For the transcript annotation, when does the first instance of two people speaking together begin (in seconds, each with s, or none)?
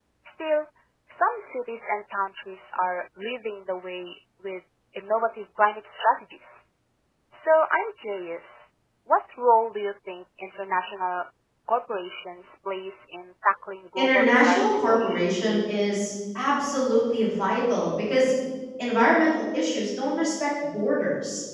14.0 s